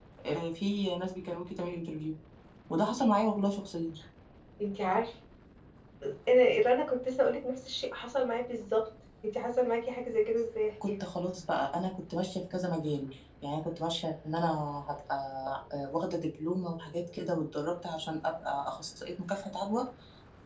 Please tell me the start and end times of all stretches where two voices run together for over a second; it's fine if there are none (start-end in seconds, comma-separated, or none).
none